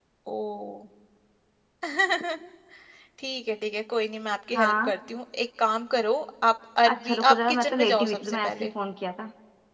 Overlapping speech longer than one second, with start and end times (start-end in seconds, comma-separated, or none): 6.9-8.7